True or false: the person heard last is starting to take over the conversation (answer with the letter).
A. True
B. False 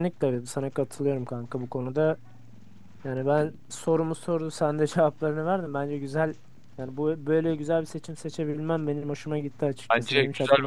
A